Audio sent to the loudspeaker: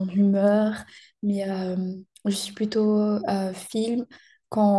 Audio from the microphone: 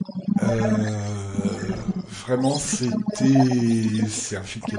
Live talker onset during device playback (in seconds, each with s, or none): 0.4 s